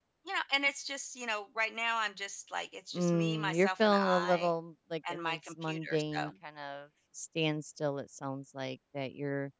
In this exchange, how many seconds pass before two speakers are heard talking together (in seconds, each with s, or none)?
2.9 s